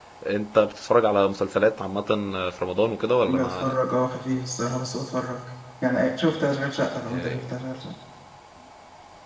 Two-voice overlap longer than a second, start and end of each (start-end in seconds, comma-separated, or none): none